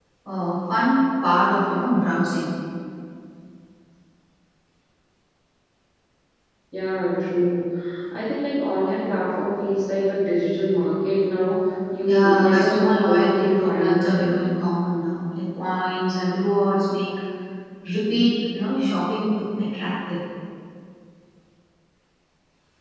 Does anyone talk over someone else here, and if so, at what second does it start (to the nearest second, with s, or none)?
12 s